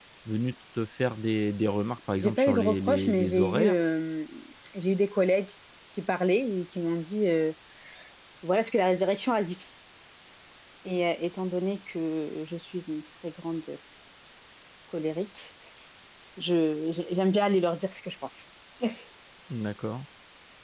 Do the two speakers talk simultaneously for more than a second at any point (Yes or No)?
Yes